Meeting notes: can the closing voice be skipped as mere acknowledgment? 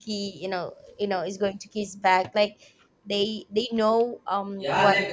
No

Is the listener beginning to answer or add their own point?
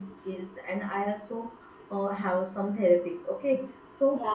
No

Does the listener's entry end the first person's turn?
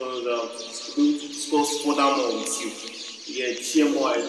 No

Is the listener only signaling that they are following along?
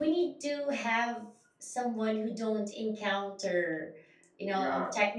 No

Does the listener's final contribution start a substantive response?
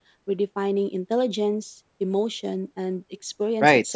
Yes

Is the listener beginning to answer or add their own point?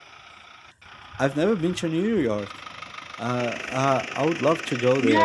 Yes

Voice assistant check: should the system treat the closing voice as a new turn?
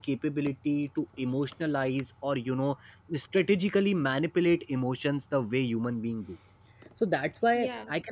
No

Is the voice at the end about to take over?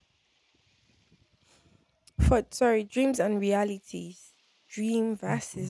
No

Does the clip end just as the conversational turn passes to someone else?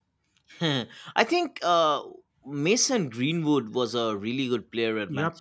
Yes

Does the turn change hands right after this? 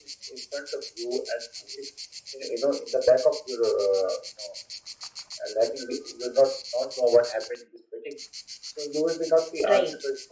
No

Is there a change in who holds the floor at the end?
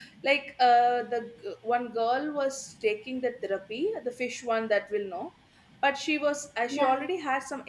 No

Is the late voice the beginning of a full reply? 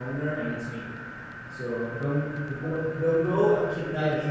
Yes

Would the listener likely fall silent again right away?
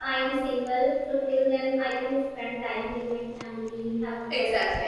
No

